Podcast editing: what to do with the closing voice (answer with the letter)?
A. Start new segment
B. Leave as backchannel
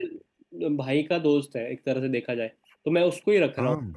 B